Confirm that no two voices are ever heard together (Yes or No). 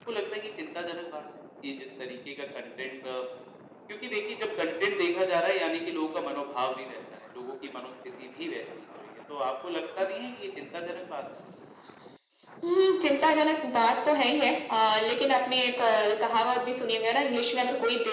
Yes